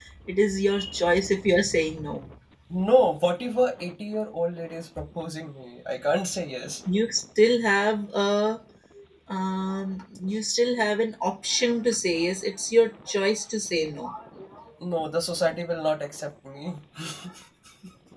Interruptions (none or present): none